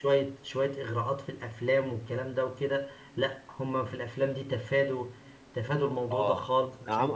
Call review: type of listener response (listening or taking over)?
taking over